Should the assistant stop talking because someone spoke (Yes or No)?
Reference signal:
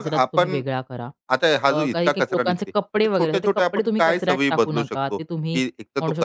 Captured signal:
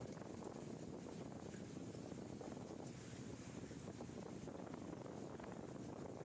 No